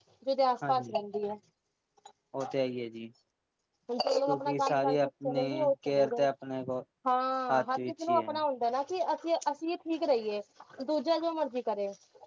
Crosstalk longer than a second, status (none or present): present